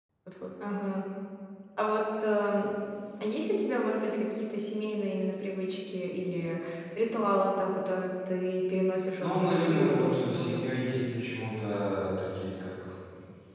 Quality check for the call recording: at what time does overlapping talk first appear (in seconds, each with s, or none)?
9.2 s